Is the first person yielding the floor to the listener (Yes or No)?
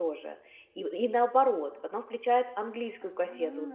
No